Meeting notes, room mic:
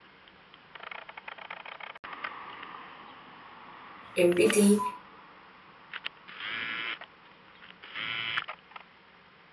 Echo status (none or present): none